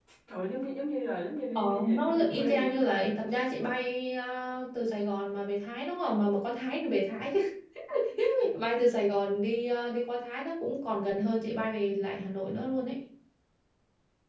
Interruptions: present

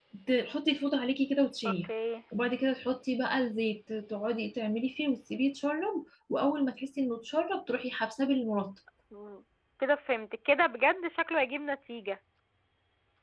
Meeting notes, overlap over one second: none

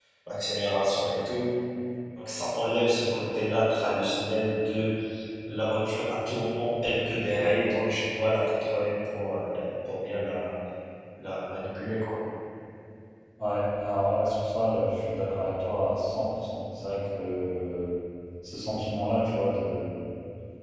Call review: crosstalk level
none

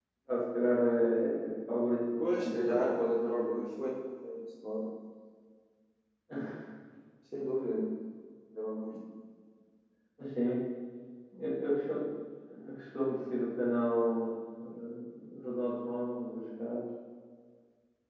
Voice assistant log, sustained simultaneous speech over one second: present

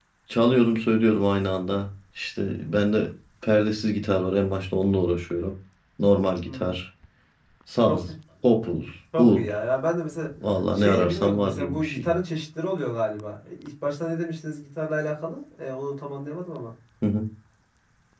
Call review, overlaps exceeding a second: present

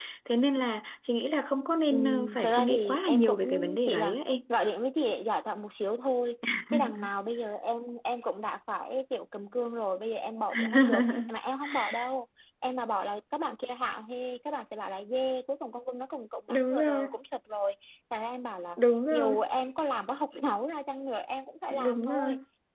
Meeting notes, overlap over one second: present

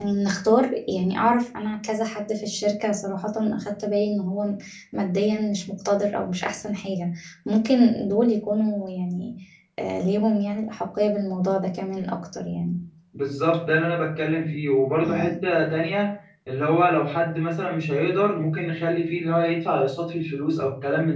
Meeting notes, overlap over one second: none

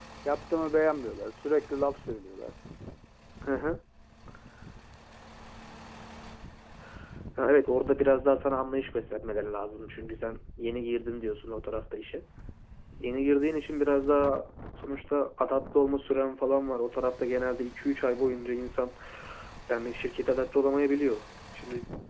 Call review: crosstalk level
none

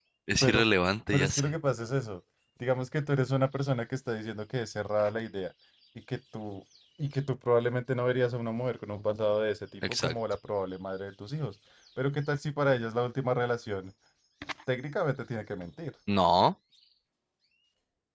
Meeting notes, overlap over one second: none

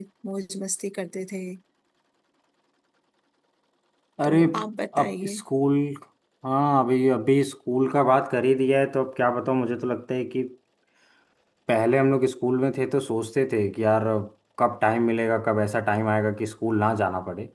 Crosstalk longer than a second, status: none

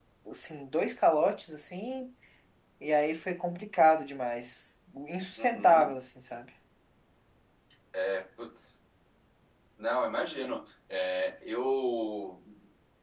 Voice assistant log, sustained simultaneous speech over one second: none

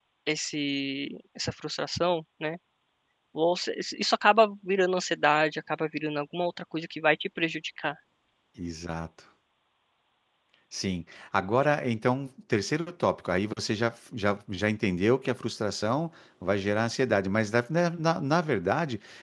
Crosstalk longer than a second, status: none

